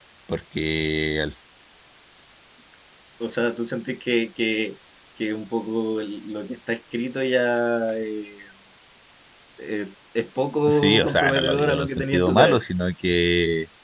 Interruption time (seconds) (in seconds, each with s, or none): 10.7 s